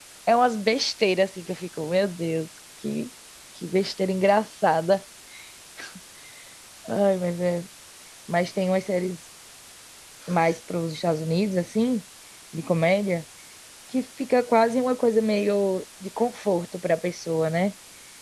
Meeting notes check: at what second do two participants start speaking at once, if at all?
none

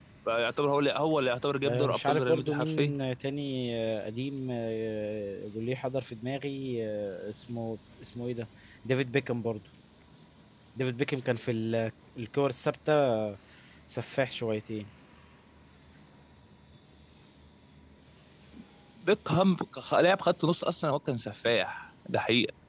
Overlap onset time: 1.6 s

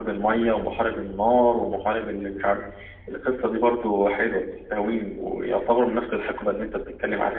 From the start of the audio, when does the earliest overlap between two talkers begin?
none

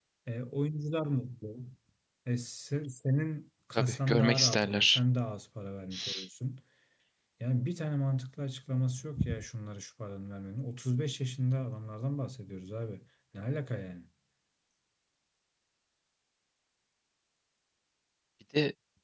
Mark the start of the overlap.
3.8 s

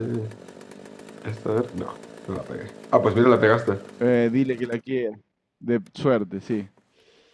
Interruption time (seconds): none

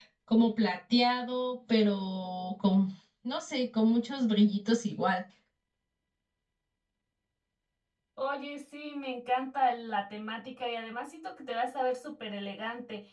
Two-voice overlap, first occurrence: none

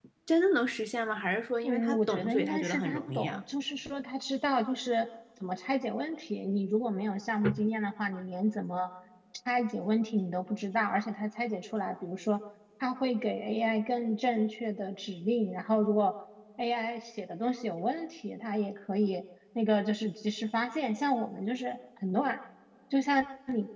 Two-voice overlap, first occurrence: 1.6 s

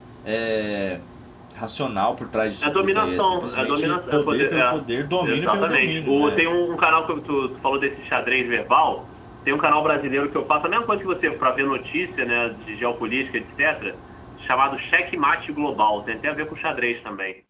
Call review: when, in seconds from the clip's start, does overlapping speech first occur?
2.6 s

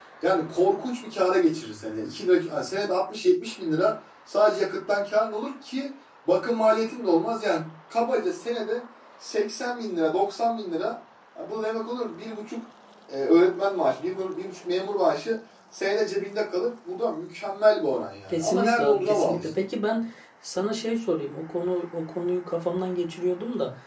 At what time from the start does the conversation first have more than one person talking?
18.3 s

